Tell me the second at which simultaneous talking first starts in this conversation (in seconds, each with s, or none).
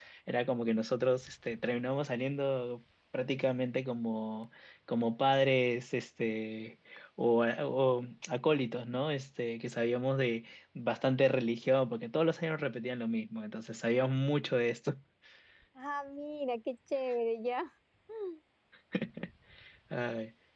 none